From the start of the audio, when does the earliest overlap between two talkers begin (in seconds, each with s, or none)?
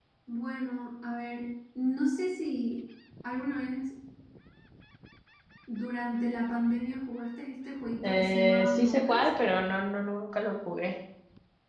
8.0 s